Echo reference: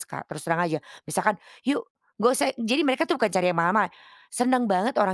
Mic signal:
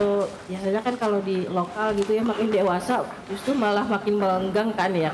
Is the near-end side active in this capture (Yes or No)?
Yes